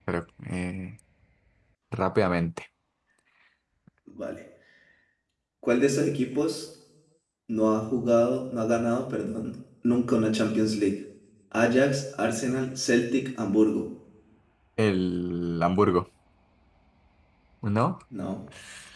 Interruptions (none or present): none